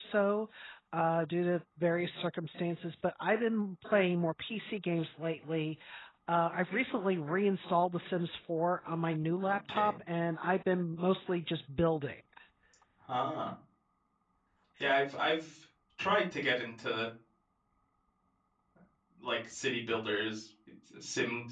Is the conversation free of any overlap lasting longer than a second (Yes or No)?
Yes